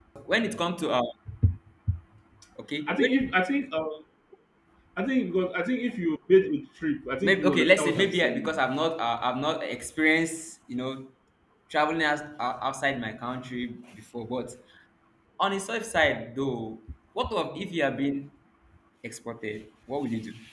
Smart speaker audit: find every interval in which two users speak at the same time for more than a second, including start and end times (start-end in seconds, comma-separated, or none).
7.2-8.6